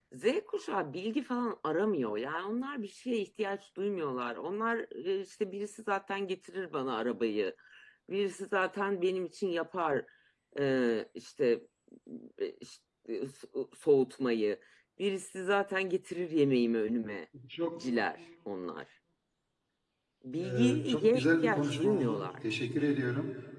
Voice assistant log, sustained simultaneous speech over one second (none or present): present